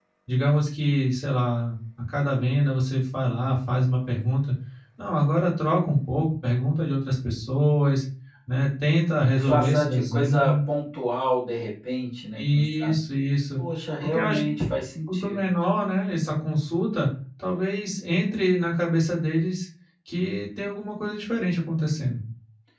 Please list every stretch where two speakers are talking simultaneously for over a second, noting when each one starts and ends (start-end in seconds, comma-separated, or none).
9.3-10.6